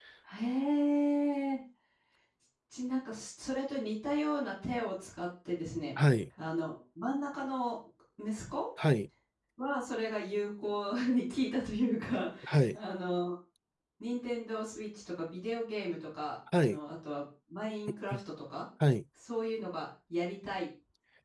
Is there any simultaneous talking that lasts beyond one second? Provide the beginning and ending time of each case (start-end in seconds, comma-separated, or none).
none